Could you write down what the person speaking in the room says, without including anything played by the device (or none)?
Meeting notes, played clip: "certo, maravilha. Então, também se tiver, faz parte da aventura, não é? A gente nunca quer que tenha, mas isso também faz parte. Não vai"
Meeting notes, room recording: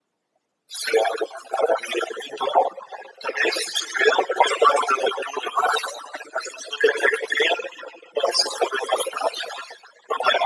none